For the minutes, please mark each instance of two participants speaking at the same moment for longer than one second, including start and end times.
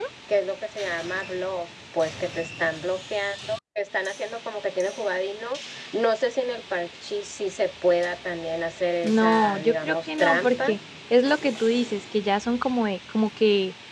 9.0-10.8

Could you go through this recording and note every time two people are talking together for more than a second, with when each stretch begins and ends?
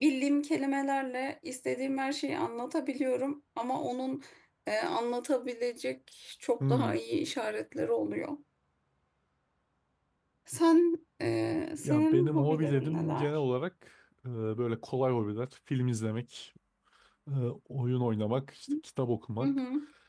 11.8-13.3

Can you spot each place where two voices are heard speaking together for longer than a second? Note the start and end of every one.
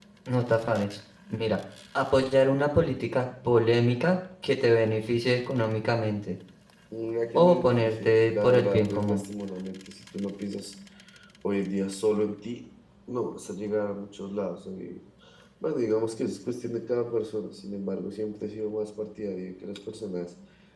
7.3-9.2

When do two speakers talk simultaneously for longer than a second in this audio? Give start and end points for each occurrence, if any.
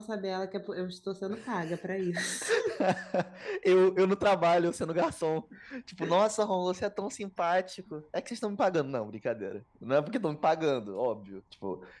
none

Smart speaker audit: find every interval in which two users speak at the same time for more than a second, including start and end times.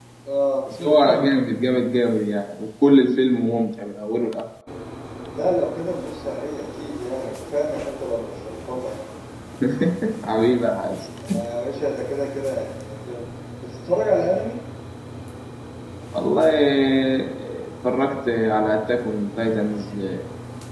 none

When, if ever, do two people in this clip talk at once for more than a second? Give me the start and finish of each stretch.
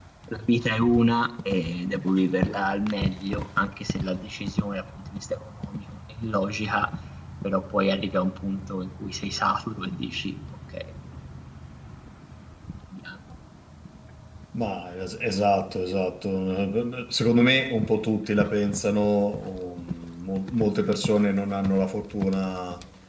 none

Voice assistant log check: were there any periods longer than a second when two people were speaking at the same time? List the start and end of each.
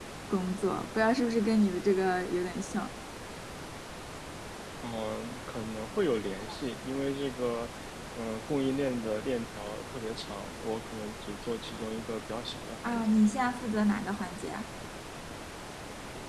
none

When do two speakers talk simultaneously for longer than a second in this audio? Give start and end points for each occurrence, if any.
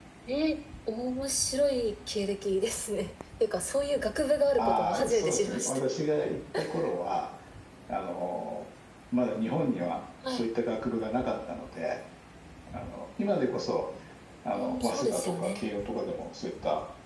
4.6-5.8, 14.5-15.8

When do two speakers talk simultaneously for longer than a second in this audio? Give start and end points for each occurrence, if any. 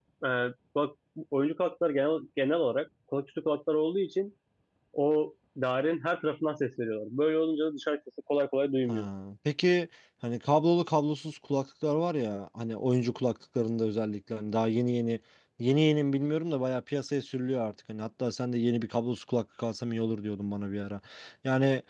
none

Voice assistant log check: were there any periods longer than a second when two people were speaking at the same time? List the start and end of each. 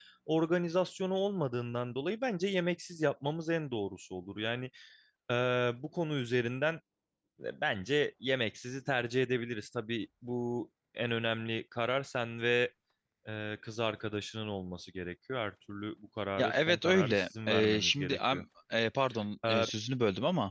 16.4-18.4

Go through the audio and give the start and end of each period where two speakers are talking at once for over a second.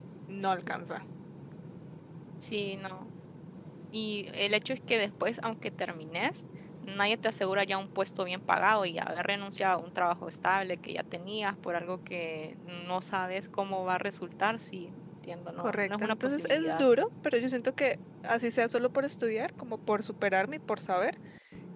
15.6-16.8

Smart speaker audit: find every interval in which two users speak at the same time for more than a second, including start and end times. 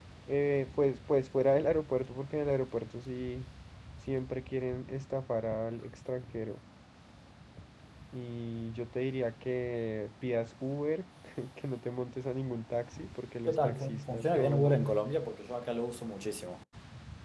13.5-14.7

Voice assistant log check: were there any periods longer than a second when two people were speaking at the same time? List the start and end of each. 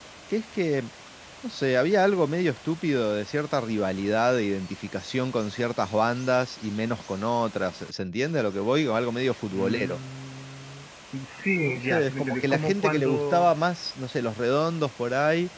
11.7-13.5

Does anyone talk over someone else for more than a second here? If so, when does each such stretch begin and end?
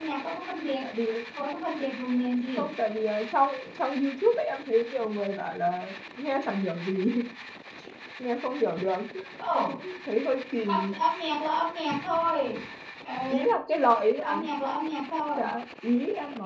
none

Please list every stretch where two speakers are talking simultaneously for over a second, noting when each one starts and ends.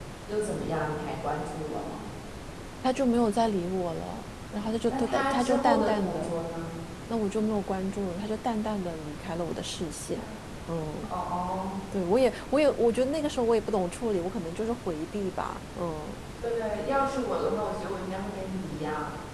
4.9-6.4

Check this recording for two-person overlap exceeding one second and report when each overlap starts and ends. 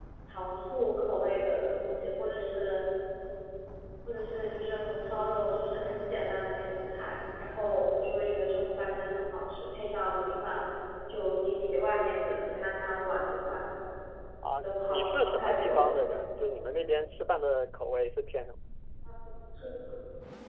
14.6-16.0

